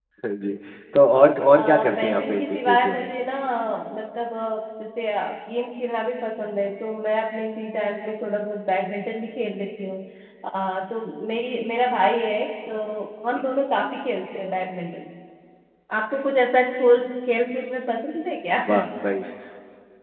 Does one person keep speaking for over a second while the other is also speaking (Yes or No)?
Yes